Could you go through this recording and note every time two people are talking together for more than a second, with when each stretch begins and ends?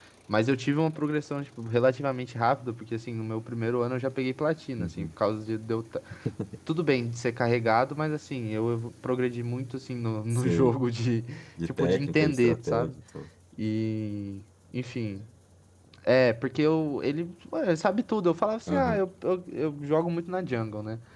11.7-12.9

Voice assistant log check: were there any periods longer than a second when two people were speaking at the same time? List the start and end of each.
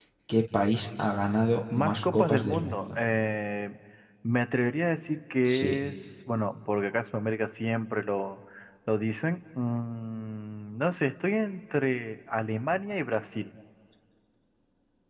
1.7-3.0

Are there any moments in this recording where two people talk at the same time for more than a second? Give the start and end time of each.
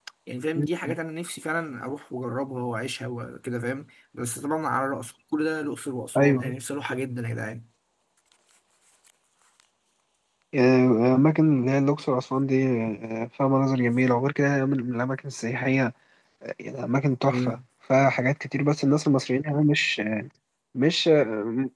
none

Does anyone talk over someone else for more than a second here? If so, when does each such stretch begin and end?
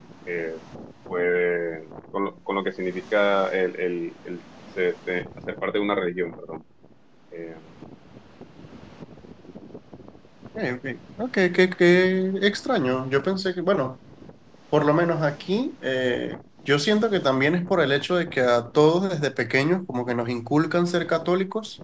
none

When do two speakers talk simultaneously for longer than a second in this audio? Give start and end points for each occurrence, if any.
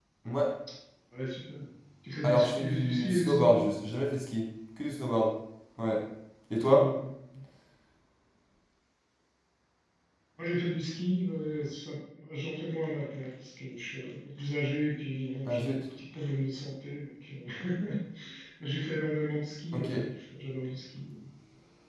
2.2-3.7

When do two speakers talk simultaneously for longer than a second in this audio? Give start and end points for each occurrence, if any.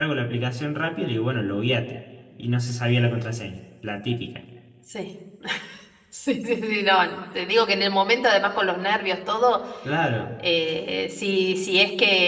none

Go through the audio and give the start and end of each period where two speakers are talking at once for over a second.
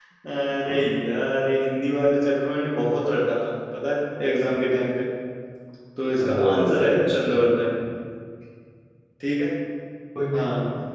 6.2-7.5

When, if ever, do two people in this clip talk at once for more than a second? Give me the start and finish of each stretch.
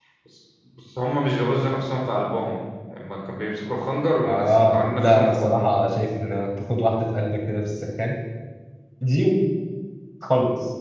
4.3-5.7

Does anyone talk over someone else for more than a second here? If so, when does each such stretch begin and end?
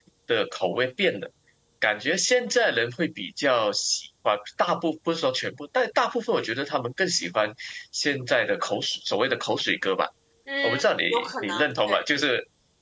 10.6-12.0

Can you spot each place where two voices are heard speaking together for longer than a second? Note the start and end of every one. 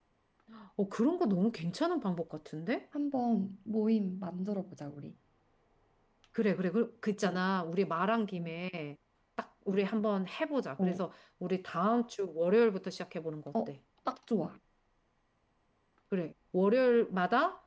none

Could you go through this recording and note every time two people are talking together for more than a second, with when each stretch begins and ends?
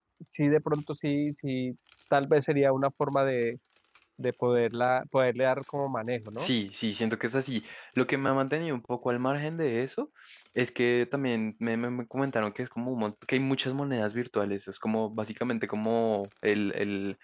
none

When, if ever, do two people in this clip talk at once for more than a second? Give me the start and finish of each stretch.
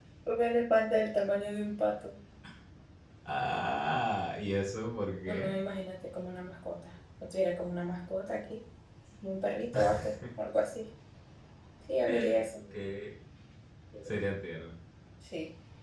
none

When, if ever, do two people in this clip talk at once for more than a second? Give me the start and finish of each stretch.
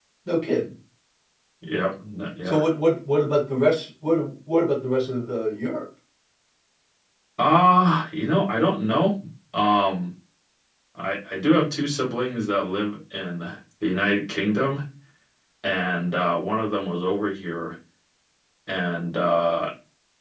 none

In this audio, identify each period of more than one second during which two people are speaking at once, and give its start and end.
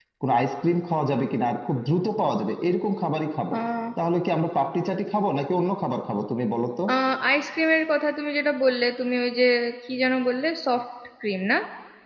none

